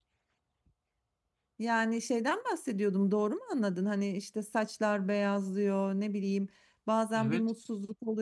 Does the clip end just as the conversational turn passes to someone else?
No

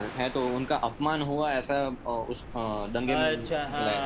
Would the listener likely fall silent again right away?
No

